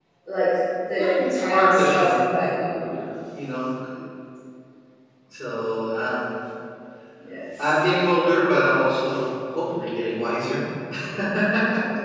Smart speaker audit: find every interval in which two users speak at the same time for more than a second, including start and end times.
1.0-2.2

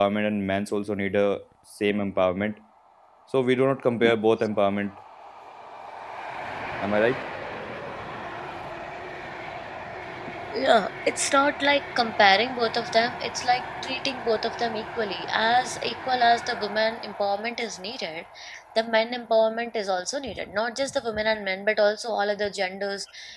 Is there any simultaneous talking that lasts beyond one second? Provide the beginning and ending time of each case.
none

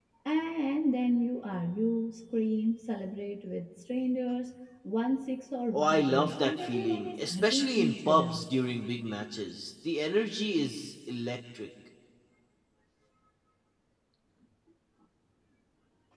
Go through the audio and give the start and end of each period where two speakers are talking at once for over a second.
5.7-8.4

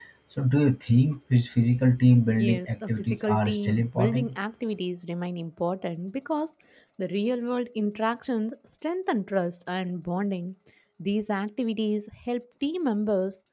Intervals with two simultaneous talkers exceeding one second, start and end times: 2.4-4.4

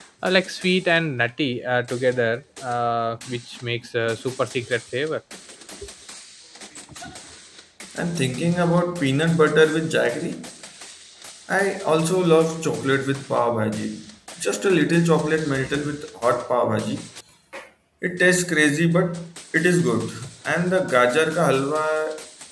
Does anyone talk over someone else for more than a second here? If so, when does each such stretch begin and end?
none

